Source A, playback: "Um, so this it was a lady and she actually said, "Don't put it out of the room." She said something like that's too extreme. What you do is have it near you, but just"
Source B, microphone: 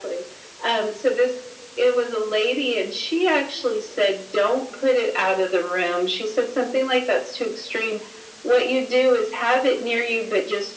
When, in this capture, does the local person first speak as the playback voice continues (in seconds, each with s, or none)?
none